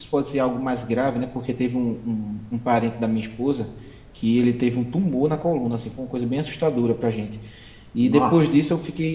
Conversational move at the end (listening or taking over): listening